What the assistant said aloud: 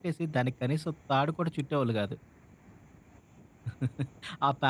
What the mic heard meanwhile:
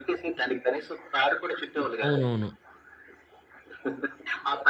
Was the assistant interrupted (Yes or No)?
Yes